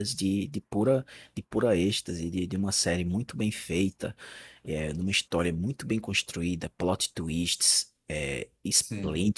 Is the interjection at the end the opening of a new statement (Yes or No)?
No